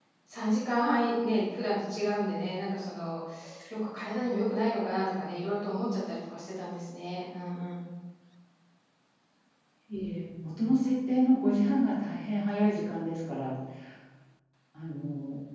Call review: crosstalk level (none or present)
none